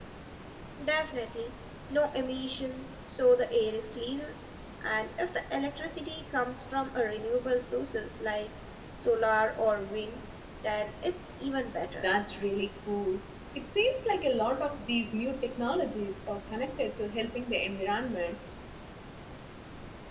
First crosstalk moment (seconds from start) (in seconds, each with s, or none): none